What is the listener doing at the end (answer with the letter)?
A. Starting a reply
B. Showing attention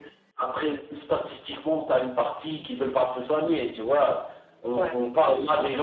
B